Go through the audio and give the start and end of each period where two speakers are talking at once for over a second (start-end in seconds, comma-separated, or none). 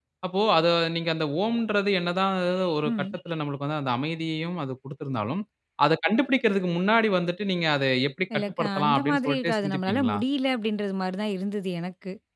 8.3-10.2